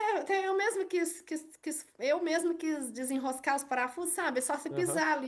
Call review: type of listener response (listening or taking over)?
listening